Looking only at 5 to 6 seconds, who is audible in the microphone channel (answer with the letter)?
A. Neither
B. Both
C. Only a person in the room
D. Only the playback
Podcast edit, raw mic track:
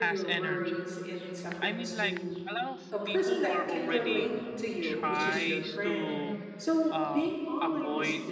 B